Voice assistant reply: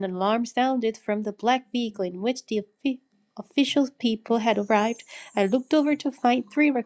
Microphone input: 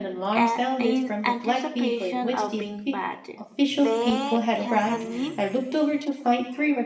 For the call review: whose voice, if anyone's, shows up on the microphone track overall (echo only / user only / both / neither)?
both